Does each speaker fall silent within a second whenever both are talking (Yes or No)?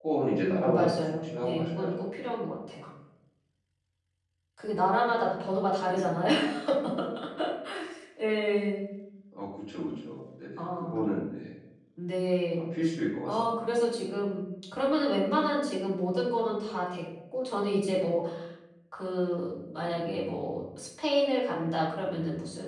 No